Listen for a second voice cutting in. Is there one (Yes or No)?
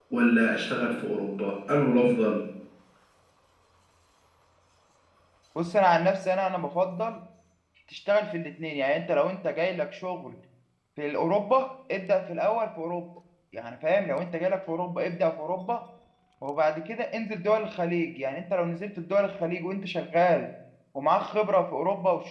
No